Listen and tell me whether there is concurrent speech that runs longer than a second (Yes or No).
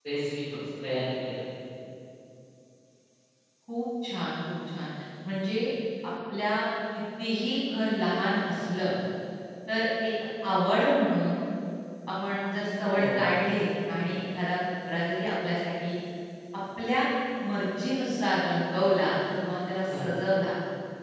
No